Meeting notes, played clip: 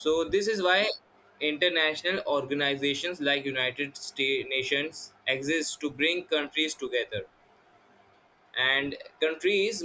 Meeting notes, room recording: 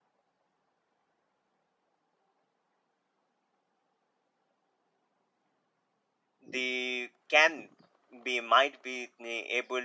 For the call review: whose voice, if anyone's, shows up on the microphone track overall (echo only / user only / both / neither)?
user only